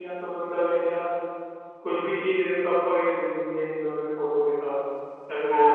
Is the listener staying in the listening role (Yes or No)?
No